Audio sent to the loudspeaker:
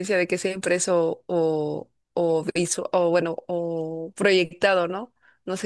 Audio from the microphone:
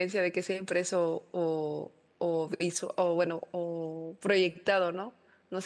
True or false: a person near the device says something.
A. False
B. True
A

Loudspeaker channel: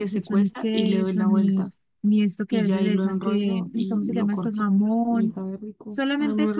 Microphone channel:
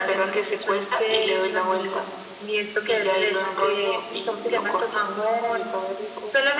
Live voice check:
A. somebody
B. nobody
B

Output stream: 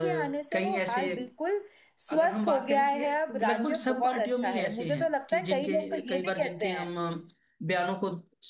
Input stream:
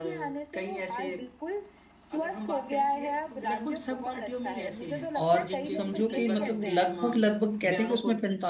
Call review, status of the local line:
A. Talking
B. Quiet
A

